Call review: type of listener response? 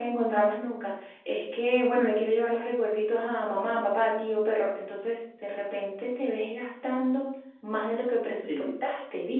listening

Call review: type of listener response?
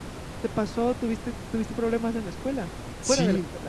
taking over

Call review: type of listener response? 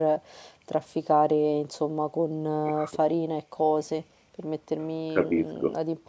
listening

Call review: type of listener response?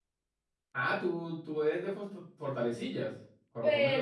taking over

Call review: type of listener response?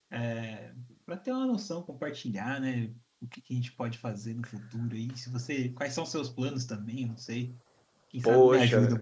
taking over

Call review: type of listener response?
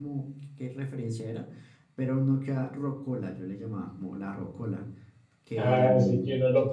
taking over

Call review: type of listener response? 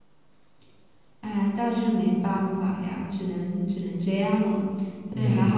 taking over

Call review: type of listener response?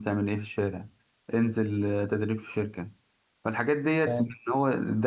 listening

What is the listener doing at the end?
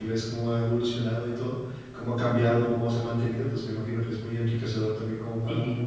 taking over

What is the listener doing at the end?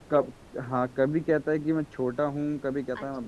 taking over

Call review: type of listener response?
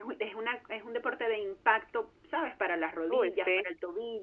listening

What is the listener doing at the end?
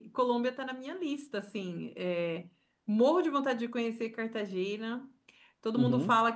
listening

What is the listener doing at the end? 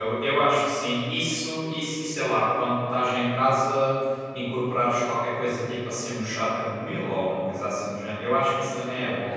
taking over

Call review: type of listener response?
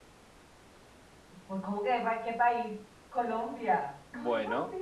taking over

